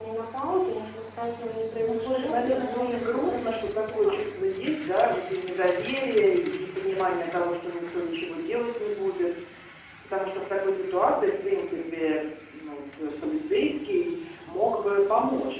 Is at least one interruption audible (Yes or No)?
Yes